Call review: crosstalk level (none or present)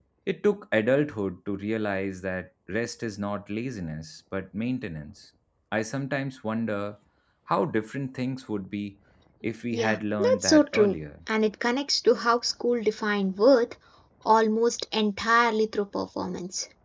present